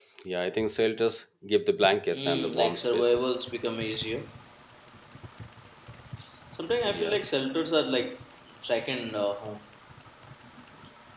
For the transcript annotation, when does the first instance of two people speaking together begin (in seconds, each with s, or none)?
2.1 s